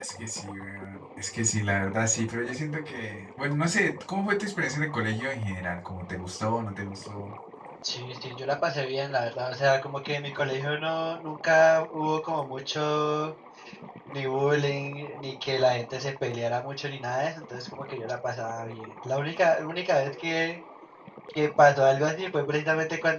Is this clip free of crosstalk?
Yes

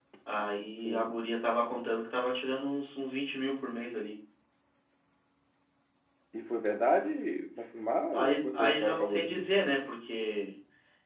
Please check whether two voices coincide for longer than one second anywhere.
Yes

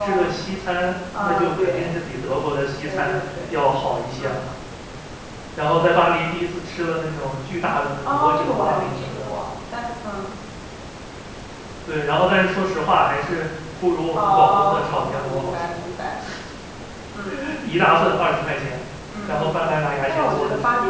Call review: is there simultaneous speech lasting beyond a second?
Yes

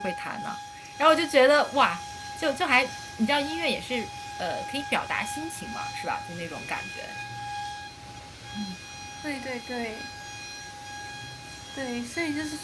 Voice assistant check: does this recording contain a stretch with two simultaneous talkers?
No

